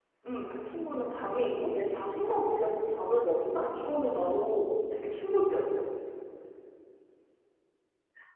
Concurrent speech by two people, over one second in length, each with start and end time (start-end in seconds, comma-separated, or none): none